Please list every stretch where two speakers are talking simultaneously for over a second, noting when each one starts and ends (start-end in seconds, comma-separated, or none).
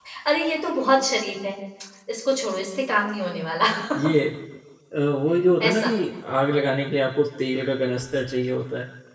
none